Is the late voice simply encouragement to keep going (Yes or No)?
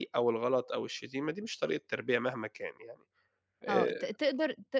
No